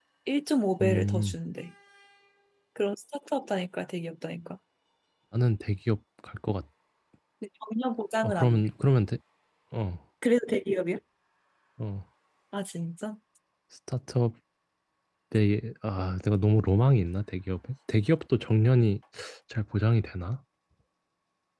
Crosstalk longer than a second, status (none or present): none